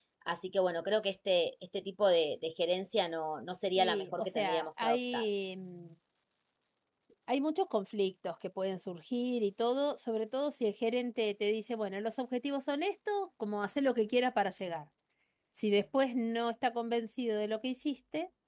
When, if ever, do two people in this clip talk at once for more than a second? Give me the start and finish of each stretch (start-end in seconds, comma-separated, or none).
3.8-5.2